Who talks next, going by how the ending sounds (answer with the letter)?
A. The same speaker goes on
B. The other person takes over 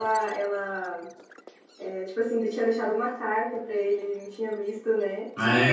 B